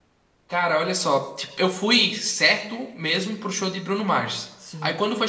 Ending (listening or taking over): listening